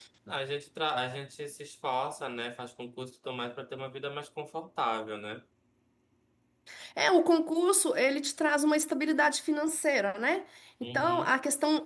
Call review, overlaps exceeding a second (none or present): none